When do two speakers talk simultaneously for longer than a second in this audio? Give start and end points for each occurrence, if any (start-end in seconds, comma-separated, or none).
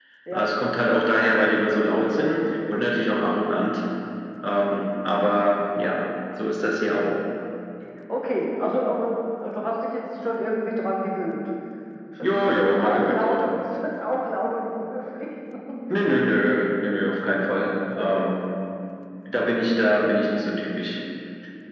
12.2-13.5